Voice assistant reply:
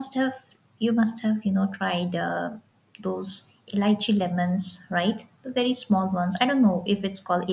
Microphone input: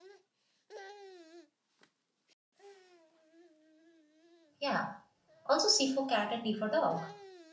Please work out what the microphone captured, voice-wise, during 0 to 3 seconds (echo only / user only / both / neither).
neither